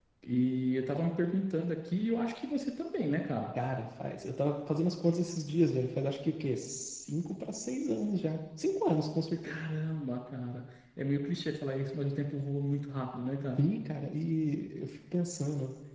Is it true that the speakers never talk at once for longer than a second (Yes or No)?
Yes